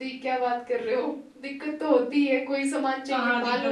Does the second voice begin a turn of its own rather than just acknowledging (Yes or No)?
Yes